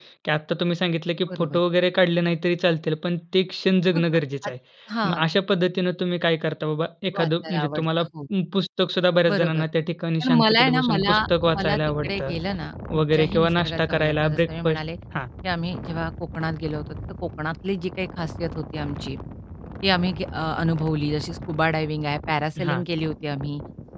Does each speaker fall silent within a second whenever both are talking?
No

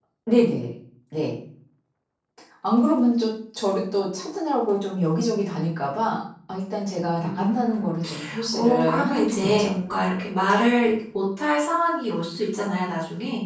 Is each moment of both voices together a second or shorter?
No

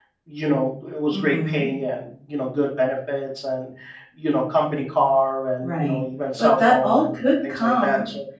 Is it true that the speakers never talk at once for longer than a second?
No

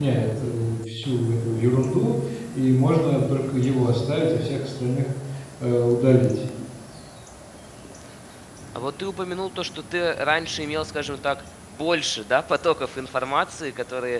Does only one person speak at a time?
Yes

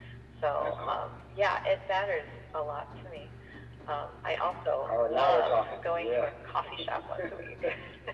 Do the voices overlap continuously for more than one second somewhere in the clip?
Yes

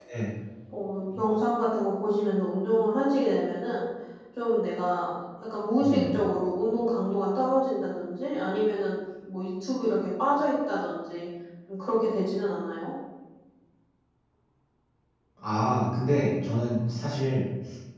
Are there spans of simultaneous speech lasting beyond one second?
No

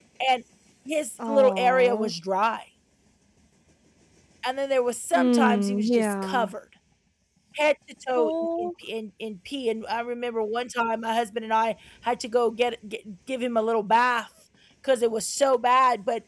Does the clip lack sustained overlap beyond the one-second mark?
No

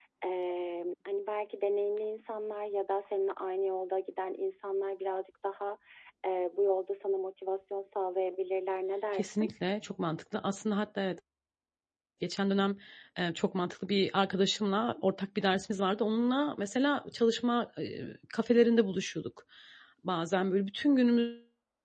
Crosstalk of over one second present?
No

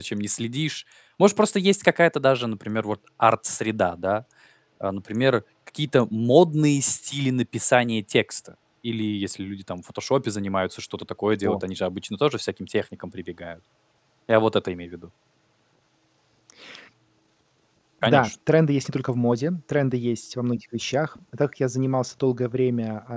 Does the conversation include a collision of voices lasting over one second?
No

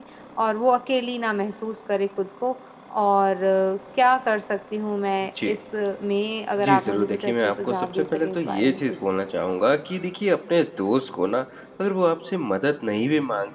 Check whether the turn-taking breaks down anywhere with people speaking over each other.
Yes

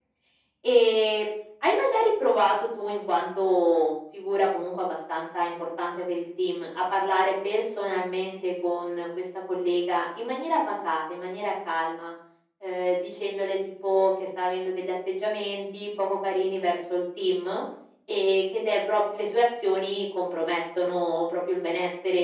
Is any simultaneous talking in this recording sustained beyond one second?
No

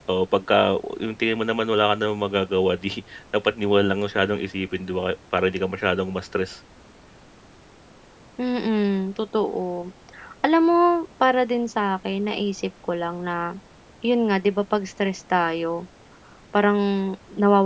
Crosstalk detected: No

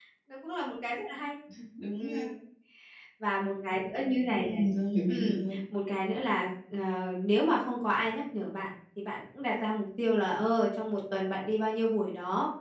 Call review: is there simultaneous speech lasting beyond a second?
No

